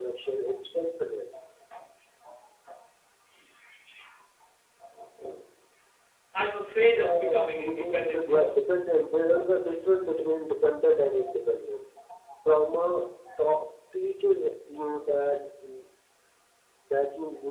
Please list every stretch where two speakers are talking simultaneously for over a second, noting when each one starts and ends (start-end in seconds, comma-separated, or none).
7.0-8.5